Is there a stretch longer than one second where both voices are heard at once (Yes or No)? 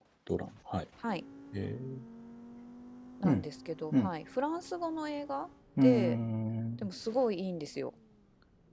No